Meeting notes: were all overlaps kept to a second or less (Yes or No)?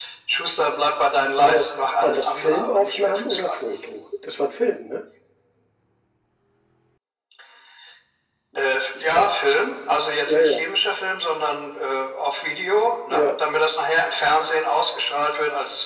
No